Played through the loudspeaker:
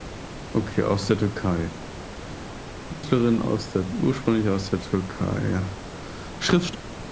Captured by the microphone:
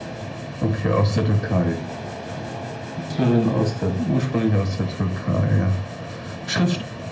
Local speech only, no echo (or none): none